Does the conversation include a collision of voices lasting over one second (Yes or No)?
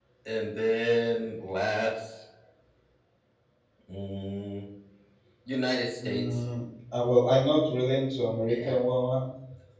No